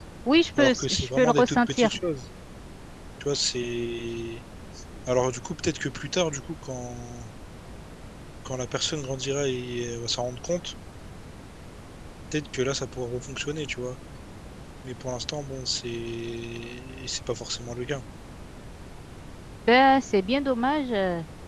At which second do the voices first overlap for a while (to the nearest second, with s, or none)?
1 s